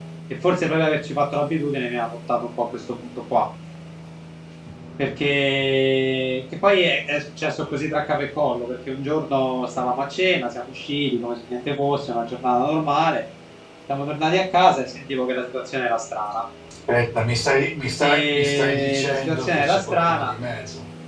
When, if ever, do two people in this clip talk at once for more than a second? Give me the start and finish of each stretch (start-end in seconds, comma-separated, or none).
18.0-20.3